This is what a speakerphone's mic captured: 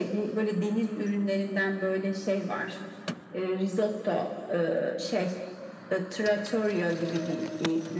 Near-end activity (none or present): none